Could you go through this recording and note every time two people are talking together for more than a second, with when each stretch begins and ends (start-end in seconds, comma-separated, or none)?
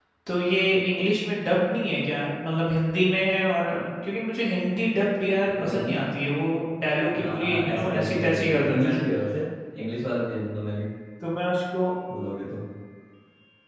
7.1-9.0